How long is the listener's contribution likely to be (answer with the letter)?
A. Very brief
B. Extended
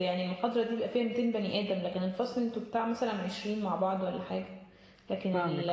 B